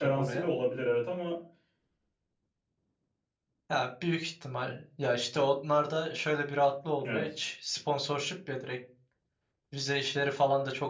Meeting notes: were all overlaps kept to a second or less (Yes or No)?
Yes